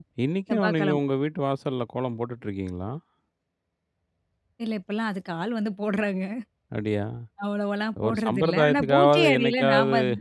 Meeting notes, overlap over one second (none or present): present